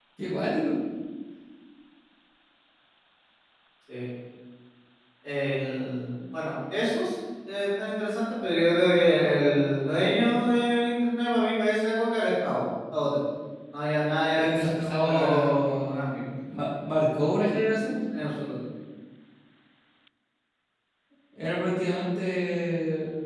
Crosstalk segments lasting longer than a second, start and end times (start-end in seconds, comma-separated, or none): 14.4-16.3